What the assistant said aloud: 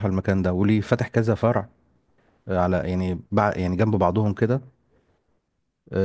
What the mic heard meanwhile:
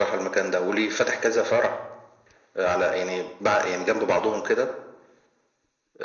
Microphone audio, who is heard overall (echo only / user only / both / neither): echo only